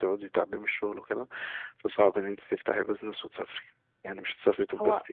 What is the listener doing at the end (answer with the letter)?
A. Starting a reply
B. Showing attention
A